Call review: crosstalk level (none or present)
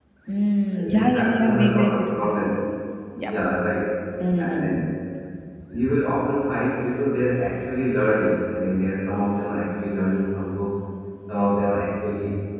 present